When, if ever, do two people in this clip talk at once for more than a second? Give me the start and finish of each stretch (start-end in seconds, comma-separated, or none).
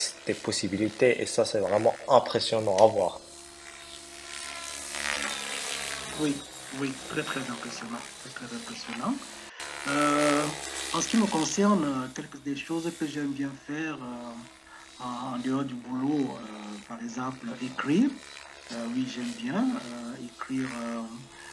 none